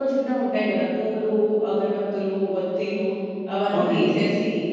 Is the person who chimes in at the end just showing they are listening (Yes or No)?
Yes